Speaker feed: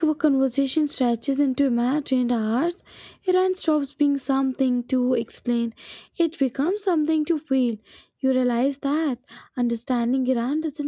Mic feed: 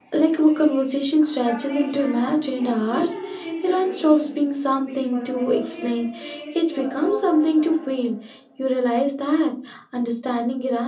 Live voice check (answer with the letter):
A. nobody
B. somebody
B